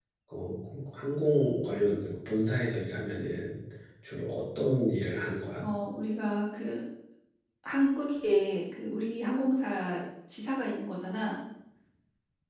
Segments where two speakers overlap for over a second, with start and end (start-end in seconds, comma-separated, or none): none